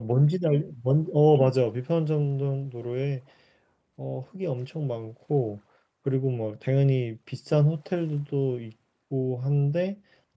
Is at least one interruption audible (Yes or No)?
No